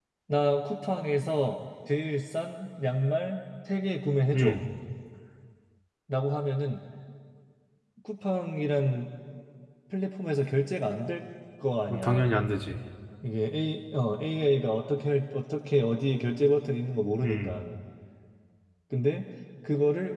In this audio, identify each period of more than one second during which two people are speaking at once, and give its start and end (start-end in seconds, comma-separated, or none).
none